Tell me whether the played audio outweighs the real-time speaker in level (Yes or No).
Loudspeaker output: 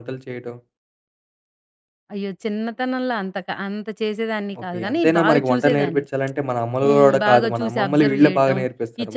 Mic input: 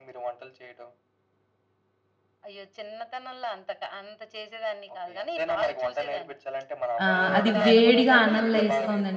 No